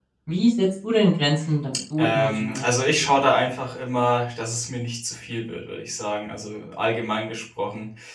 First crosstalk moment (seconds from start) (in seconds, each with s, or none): 2.0 s